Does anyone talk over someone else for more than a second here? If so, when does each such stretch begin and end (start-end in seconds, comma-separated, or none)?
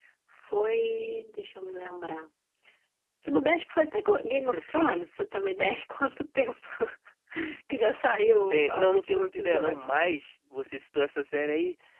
8.5-9.9